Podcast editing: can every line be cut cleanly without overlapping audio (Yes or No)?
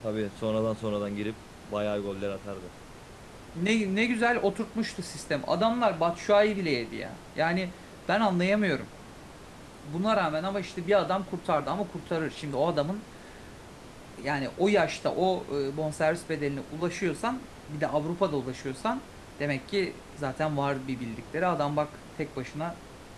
Yes